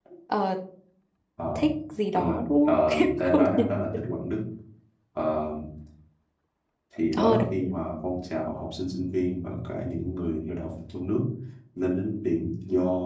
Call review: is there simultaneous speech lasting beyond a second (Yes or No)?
Yes